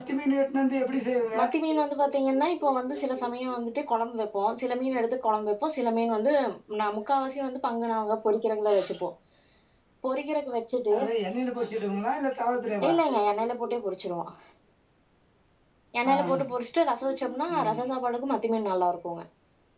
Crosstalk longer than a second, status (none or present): none